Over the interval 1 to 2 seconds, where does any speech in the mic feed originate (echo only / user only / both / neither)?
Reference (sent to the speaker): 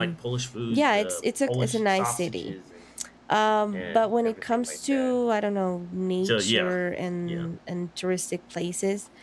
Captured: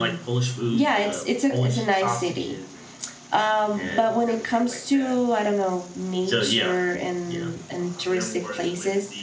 echo only